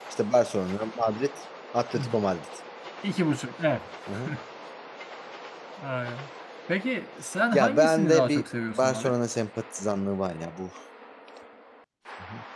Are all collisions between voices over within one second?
No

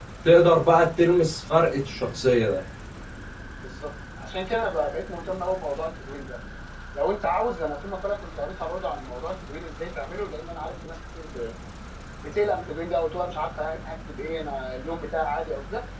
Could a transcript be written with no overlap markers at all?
Yes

